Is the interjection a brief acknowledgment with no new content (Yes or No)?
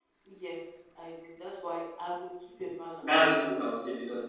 No